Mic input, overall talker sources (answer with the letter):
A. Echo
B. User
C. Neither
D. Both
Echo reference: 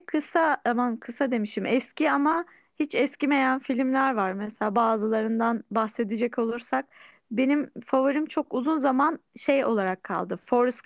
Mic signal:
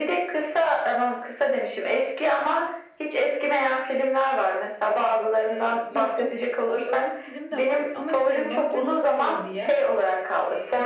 D